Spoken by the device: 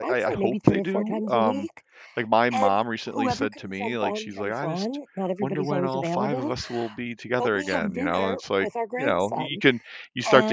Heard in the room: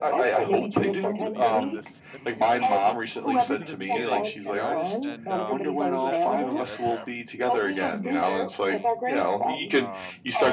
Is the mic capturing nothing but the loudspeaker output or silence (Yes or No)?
No